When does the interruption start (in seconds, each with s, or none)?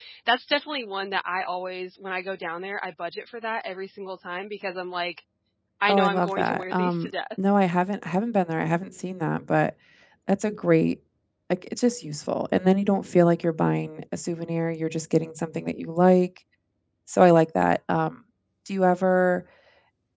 5.9 s